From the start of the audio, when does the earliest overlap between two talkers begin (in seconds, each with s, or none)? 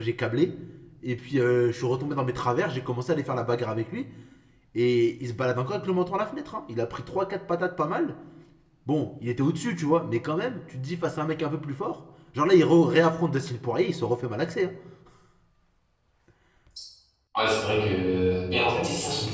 none